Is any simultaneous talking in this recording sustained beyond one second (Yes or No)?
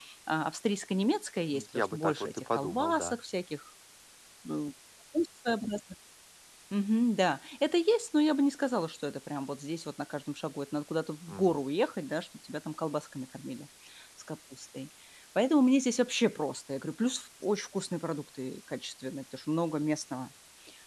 Yes